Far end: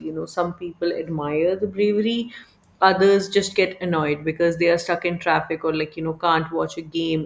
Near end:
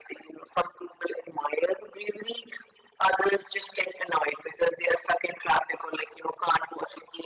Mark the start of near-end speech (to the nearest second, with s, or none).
none